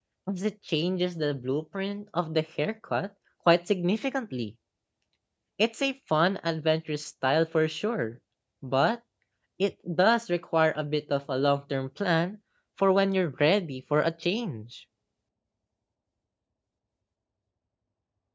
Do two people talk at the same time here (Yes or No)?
No